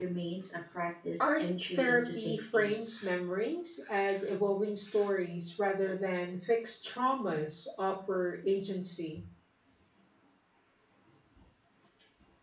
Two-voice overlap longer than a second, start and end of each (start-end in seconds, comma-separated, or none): 1.2-2.7